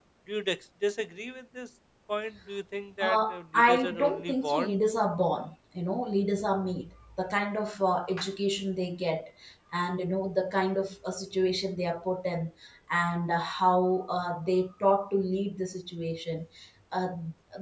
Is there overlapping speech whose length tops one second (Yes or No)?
Yes